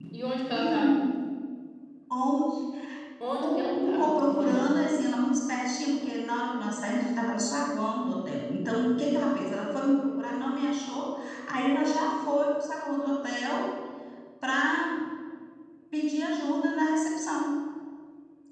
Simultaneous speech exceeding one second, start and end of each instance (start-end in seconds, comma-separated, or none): 3.4-4.7